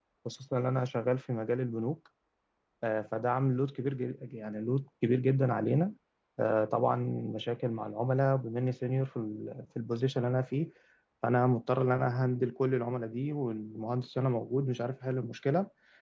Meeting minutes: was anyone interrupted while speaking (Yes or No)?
No